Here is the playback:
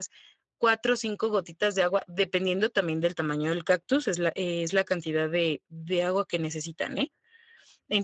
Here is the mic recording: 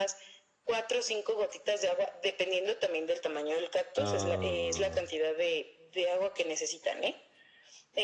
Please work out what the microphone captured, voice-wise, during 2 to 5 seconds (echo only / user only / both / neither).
both